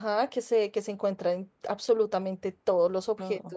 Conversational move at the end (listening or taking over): listening